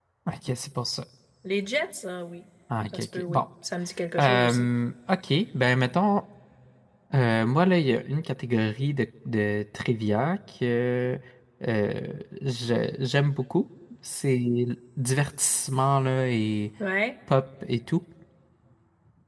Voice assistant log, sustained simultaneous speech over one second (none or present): none